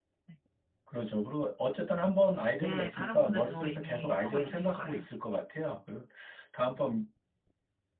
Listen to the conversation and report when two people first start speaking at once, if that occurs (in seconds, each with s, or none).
2.6 s